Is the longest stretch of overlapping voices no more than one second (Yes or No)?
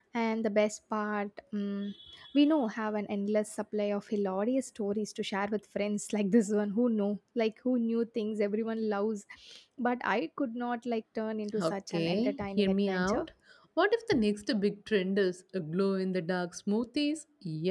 No